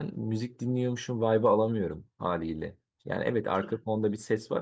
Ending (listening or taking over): listening